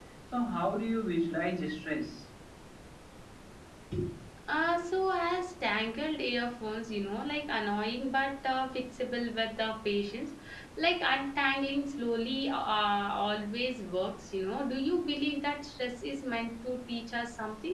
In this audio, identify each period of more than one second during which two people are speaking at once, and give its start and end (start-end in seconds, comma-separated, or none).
none